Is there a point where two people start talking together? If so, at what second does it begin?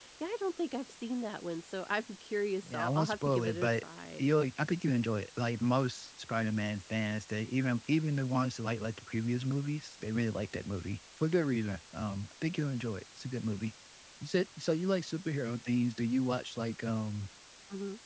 2.6 s

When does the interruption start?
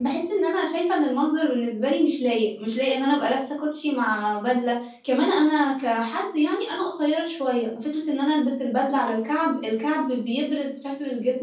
none

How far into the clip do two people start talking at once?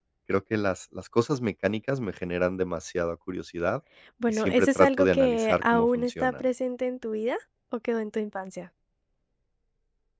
4.3 s

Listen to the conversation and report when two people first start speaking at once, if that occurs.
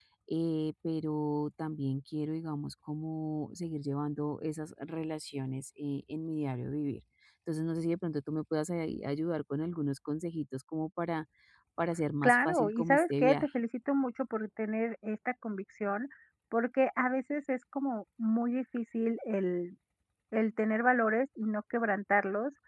12.2 s

